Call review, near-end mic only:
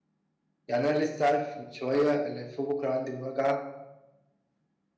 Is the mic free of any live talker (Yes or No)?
No